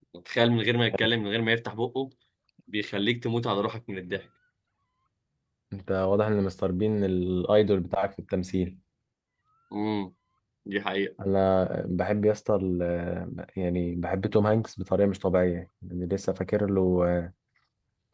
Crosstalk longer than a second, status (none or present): none